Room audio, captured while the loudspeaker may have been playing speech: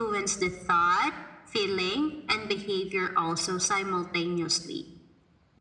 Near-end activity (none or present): none